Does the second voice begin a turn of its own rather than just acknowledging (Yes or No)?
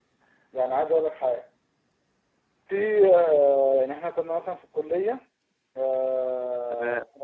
No